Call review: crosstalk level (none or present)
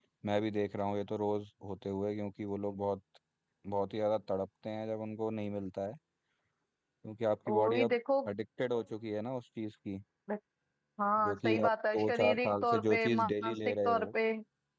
present